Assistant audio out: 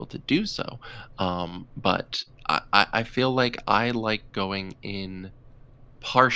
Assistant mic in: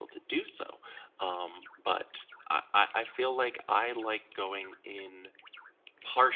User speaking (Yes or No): No